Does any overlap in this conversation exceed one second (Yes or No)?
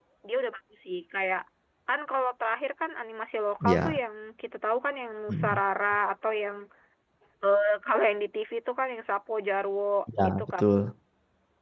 No